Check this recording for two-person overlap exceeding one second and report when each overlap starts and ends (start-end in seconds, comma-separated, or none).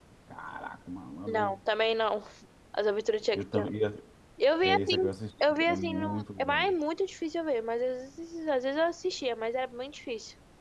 5.5-6.7